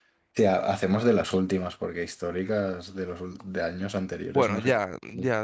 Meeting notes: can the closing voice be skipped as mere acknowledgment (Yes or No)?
No